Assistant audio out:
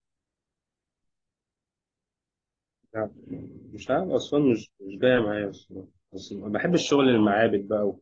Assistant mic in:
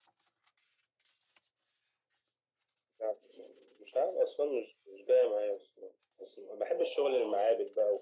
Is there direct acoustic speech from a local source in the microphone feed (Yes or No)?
No